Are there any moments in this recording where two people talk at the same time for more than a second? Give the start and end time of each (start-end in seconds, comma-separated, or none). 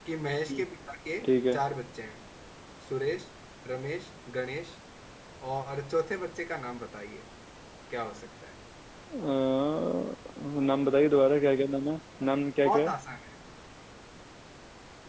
none